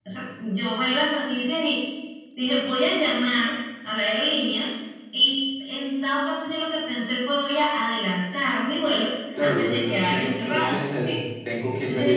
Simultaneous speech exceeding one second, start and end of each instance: 9.3-11.1

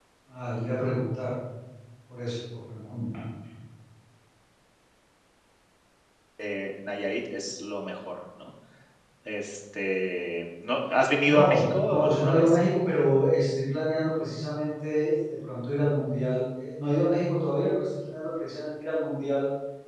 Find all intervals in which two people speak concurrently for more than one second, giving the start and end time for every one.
11.2-12.6

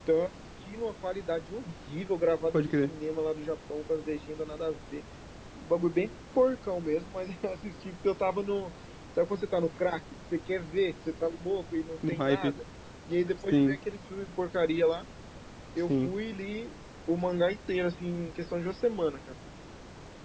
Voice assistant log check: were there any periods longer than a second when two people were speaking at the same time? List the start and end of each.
none

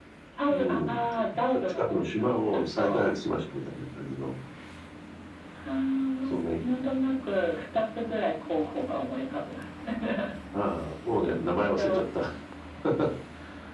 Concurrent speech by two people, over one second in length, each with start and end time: 1.6-3.0

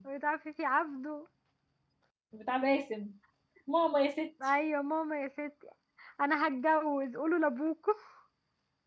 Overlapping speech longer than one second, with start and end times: none

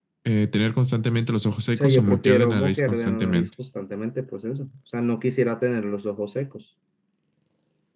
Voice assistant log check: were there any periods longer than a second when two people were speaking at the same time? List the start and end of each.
1.8-3.5

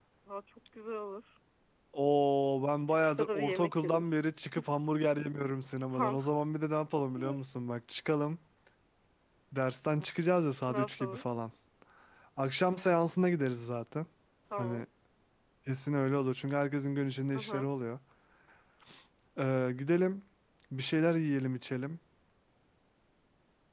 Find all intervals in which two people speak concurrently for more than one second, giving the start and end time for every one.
2.9-4.1

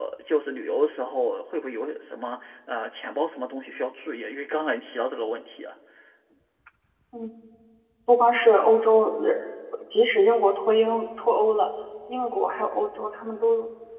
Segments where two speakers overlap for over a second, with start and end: none

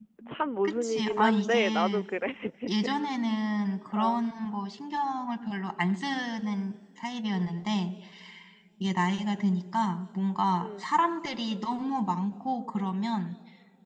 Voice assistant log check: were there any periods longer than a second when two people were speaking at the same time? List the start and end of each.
0.6-2.0

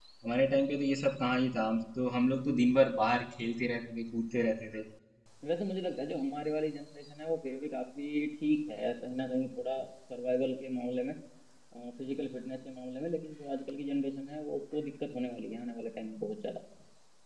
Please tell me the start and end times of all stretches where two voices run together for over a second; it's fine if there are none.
none

